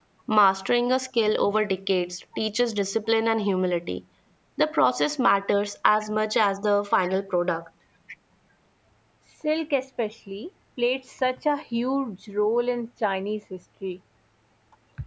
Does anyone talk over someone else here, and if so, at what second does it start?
none

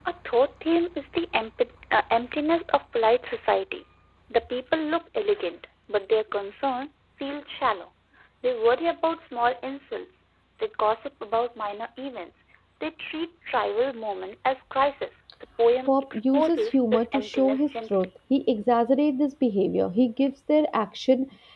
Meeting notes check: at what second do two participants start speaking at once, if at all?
16 s

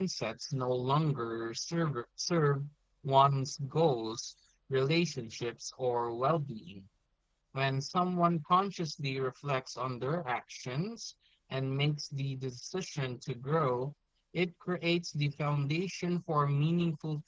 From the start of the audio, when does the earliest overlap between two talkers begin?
none

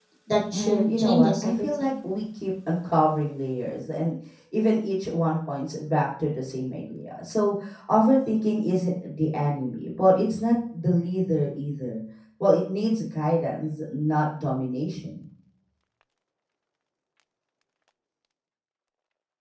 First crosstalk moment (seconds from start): 1 s

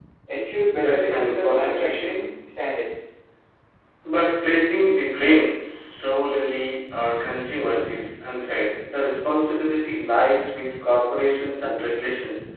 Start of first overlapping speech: 1 s

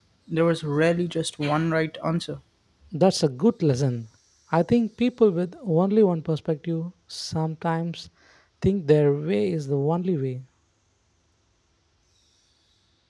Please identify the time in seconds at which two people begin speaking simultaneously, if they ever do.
none

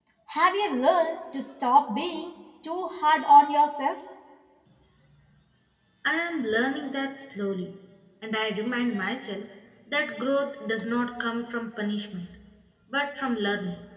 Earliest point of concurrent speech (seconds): none

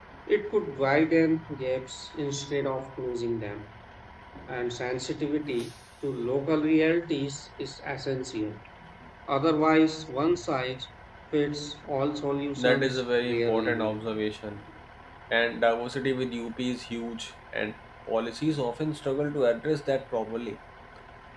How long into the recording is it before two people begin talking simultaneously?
13 s

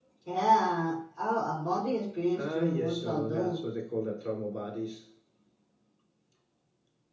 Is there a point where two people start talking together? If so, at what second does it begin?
2 s

